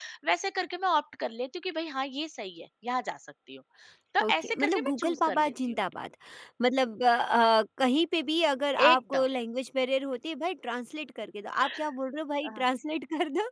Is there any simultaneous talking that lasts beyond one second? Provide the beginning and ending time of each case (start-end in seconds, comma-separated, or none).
4.2-5.8